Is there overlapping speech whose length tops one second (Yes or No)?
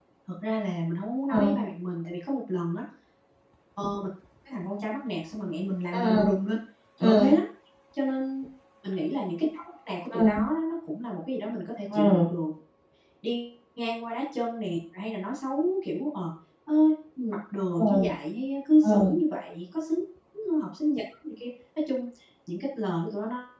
No